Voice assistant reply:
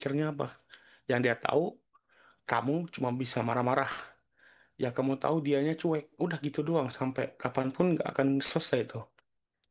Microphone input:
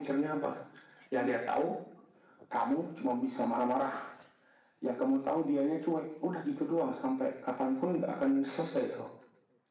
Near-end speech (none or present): none